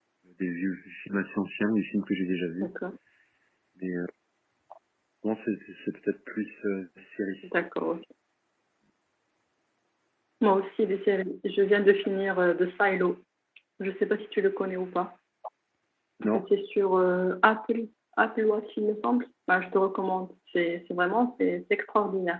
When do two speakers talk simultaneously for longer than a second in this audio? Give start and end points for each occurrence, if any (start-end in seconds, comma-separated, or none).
none